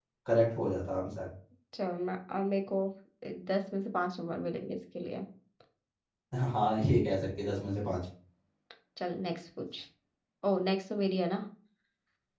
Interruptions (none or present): none